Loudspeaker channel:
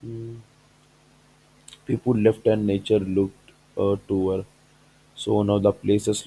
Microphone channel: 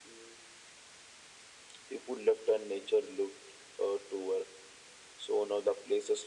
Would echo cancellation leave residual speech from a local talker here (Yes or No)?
No